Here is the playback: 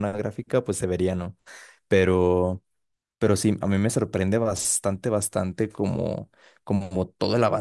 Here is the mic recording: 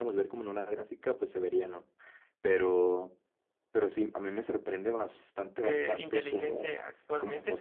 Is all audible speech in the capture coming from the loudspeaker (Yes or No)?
No